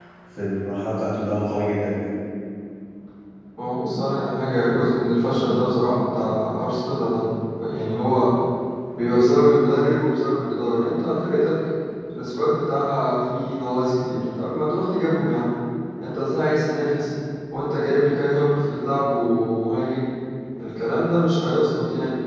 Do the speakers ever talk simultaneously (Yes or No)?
No